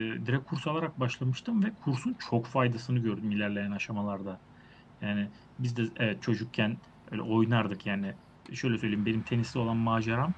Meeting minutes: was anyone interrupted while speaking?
No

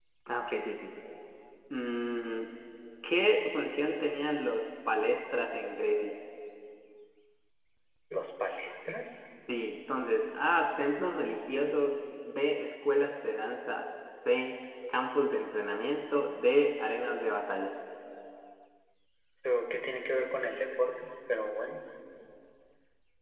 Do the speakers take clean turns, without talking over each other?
Yes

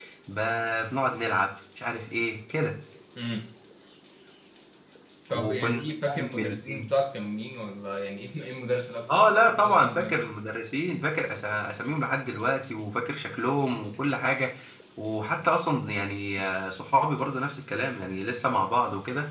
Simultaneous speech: Yes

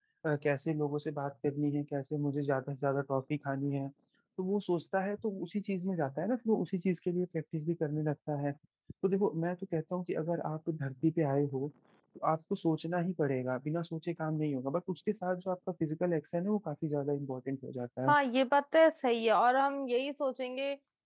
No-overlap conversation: Yes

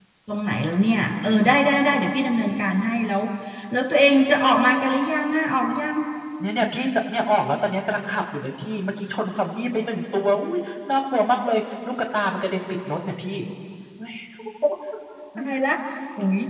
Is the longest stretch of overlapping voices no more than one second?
Yes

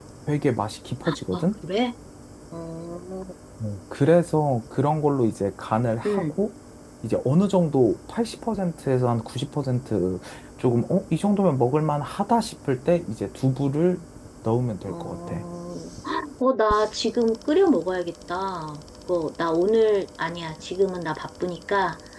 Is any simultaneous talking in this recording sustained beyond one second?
No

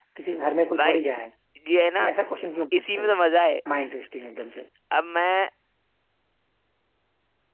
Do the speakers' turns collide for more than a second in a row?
No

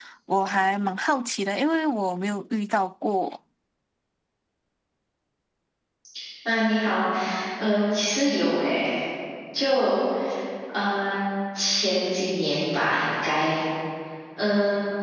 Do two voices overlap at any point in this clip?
No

